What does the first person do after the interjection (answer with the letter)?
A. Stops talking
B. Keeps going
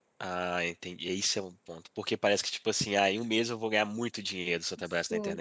A